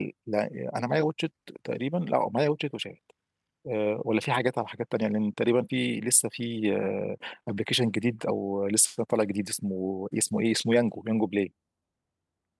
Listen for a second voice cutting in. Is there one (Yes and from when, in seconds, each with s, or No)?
No